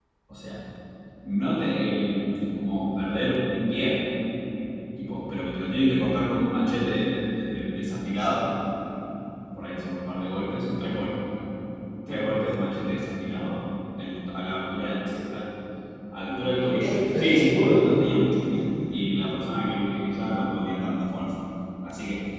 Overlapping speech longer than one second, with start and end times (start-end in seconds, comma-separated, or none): 16.8-18.0